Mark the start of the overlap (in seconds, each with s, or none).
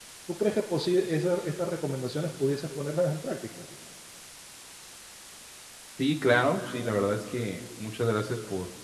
none